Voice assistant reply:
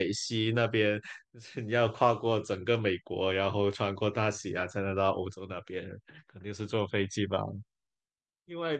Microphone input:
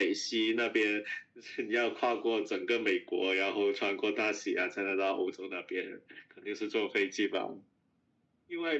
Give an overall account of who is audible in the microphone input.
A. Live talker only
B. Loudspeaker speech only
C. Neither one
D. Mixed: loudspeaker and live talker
B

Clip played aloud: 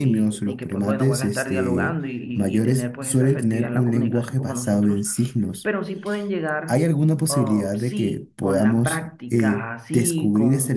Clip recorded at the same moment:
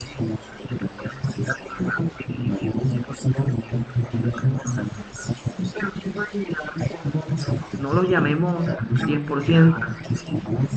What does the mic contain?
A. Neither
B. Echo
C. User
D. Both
D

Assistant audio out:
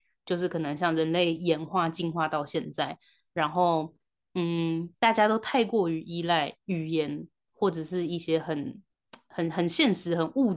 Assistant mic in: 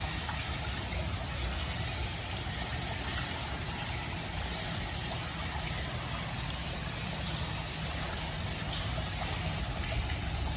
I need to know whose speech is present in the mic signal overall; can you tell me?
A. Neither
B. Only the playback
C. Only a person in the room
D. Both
A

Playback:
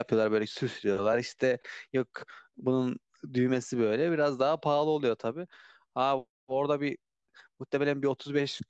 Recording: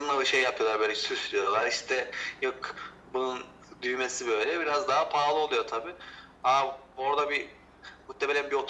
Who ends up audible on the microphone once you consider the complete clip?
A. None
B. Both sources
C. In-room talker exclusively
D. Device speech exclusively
D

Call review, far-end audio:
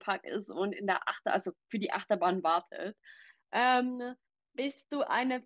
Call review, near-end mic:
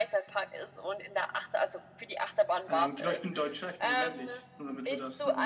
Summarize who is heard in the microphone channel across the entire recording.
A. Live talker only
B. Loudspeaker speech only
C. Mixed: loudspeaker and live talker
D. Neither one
C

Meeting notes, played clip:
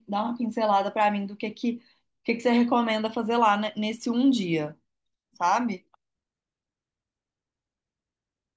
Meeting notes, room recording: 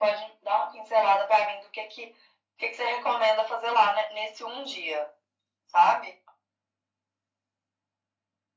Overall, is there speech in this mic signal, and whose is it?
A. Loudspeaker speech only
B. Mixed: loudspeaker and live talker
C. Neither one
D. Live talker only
A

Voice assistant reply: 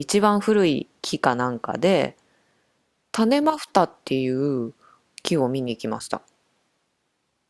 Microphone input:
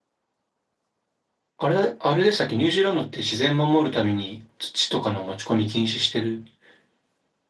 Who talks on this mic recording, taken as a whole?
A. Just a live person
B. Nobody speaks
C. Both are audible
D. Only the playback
A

